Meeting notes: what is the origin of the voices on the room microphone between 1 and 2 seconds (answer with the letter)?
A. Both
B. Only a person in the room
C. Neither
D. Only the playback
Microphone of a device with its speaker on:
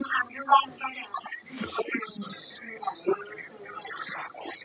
D